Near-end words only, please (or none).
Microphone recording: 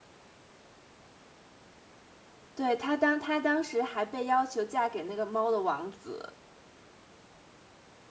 对，他当他当时还被要求嫁给那个猫的王子。